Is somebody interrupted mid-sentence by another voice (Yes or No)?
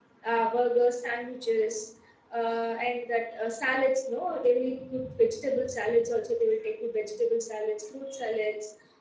No